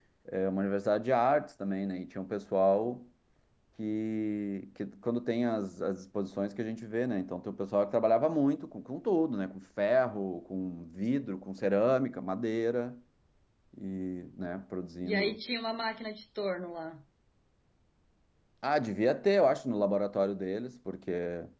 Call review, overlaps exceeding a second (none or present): none